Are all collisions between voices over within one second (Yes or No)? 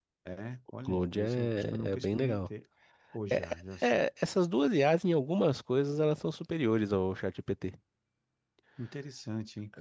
No